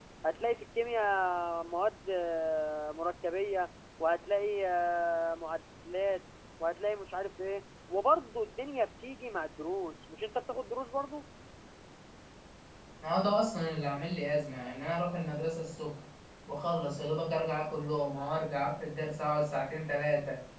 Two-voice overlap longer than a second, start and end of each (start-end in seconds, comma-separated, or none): none